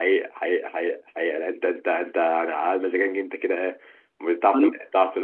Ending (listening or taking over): listening